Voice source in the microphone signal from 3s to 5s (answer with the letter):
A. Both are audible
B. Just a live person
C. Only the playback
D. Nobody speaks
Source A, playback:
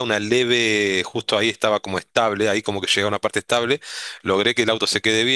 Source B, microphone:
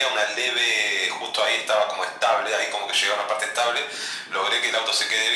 C